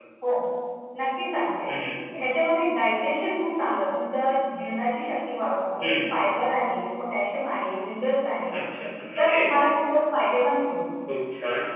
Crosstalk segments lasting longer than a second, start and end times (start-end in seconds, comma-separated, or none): none